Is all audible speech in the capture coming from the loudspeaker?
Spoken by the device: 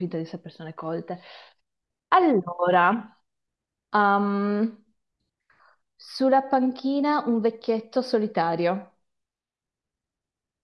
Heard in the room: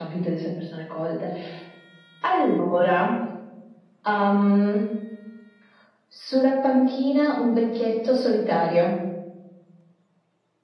Yes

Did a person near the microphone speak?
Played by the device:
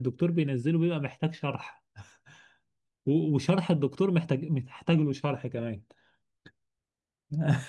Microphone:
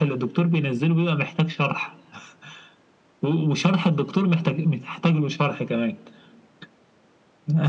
No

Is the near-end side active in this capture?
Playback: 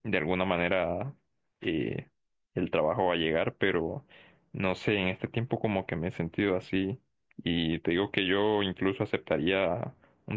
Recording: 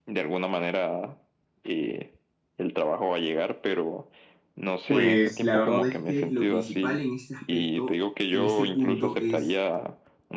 Yes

